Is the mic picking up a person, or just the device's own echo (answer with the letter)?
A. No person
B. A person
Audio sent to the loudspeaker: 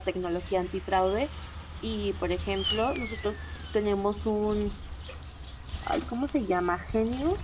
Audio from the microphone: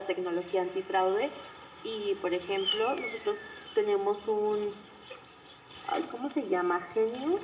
A